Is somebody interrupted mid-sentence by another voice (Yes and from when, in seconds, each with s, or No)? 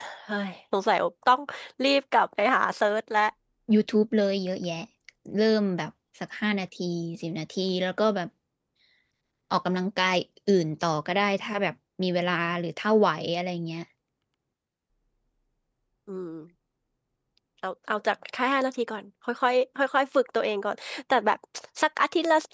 No